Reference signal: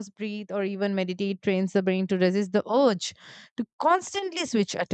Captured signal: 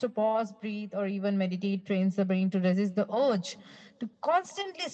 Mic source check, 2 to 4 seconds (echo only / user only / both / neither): echo only